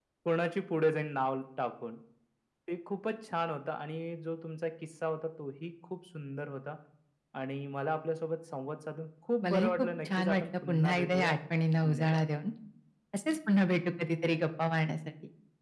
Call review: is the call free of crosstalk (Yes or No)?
No